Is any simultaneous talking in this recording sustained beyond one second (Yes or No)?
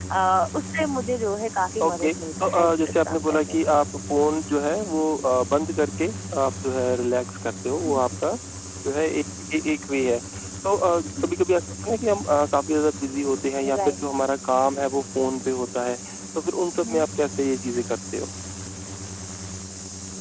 Yes